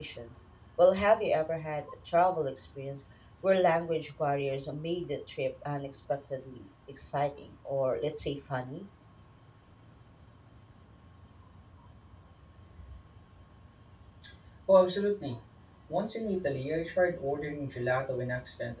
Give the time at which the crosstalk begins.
none

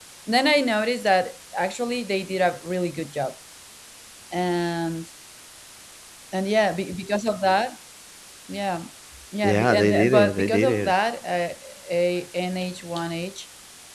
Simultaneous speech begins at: 9.4 s

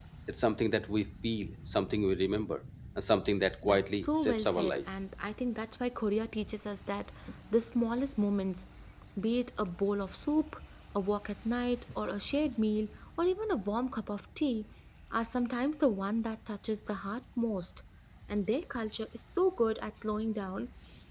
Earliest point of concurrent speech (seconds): 3.6 s

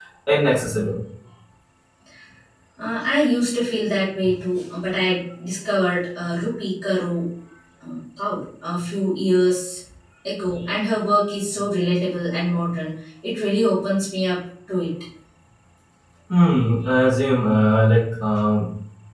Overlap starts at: none

